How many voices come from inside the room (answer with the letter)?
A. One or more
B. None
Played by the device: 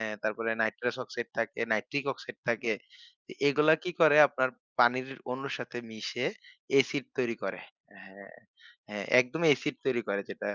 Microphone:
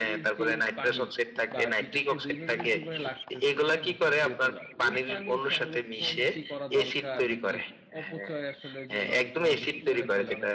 A